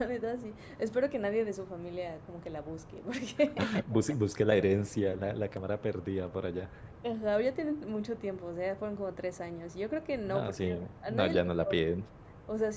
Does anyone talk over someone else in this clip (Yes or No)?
Yes